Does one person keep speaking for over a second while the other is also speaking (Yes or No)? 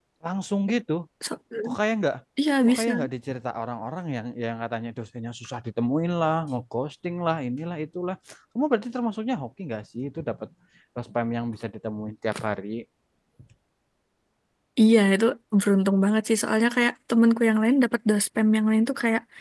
No